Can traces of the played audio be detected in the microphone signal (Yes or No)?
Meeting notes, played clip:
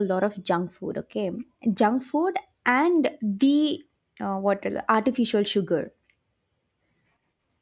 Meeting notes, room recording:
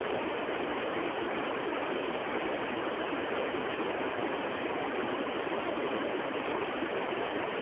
No